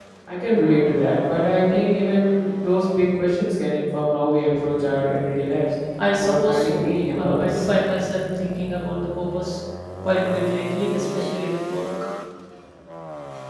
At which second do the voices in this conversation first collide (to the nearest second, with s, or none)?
6 s